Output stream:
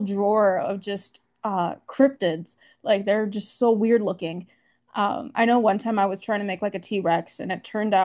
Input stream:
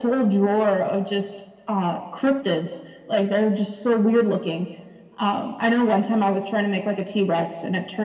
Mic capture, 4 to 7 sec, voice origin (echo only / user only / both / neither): echo only